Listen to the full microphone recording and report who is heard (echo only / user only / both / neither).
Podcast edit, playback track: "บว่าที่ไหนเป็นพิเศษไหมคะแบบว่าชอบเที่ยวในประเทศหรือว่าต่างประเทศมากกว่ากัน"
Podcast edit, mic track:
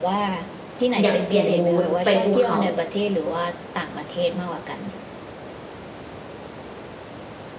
both